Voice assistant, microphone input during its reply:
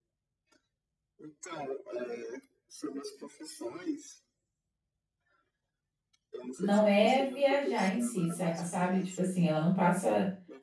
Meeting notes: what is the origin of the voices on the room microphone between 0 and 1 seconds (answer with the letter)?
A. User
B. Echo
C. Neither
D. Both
C